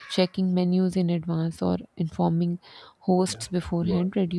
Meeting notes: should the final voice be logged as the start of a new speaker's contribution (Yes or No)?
No